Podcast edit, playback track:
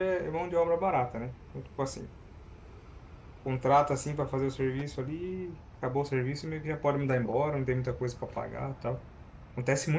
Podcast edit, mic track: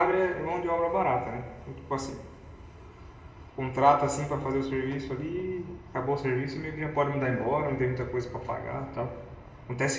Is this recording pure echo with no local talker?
Yes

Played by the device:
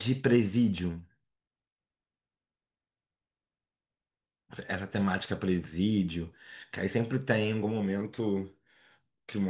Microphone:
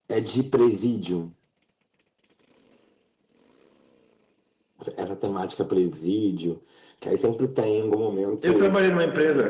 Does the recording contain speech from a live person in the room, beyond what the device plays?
Yes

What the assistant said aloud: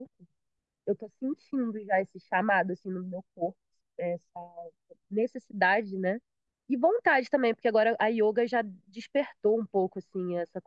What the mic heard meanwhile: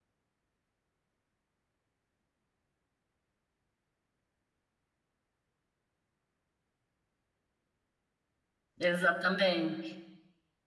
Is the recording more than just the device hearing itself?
Yes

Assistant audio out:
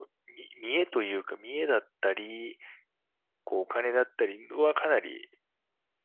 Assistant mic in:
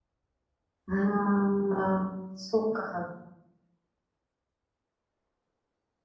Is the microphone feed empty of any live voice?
No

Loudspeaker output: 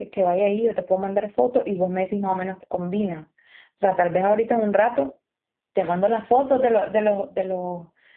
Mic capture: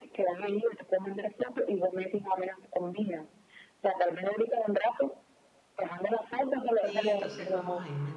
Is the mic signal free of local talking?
No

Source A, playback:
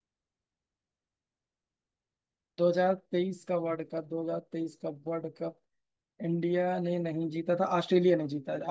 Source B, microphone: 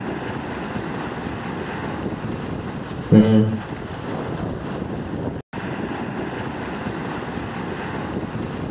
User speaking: Yes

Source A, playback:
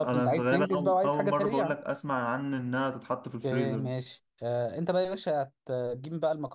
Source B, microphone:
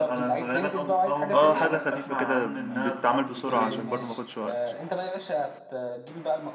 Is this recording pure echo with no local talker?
No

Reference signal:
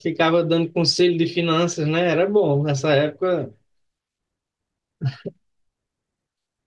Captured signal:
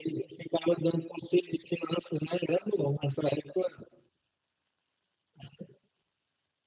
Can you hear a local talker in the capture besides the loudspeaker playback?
No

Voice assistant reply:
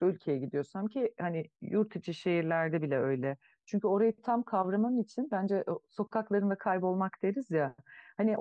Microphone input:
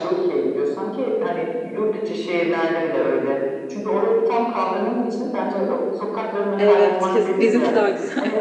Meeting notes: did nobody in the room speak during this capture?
No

